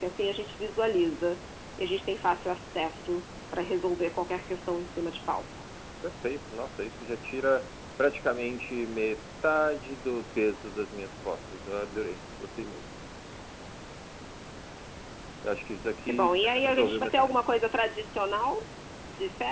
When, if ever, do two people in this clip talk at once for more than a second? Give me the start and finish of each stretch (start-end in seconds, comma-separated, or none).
16.1-17.4